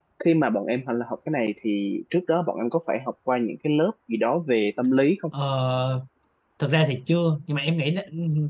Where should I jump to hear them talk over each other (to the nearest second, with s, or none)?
none